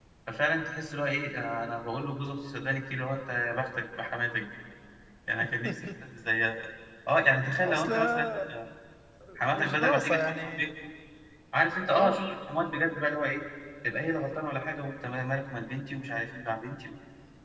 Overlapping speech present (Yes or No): Yes